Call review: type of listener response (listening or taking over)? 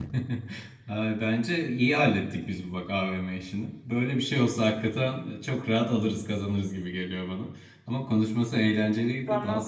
listening